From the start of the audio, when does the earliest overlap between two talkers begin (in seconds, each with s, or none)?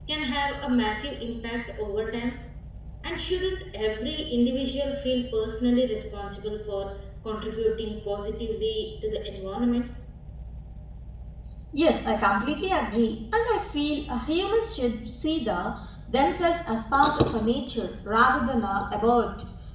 none